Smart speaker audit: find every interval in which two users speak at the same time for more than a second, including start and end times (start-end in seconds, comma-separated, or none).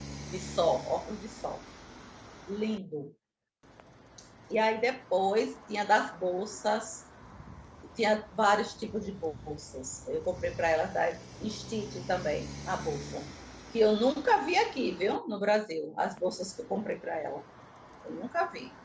none